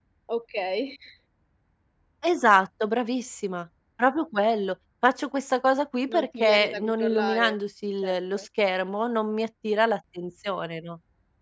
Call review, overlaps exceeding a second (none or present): present